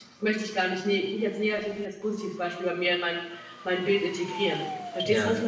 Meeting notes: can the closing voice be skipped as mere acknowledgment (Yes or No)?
No